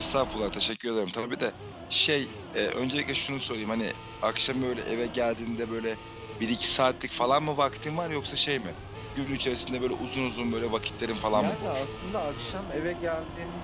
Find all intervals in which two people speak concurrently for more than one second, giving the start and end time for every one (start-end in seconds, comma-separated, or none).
none